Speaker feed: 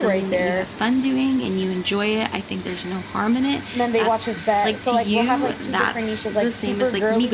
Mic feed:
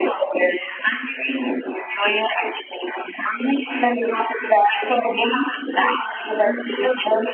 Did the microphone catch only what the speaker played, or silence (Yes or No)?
Yes